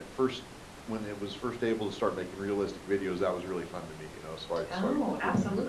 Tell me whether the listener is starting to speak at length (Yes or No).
Yes